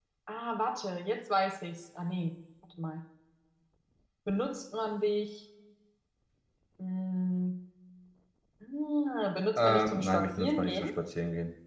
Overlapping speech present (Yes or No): Yes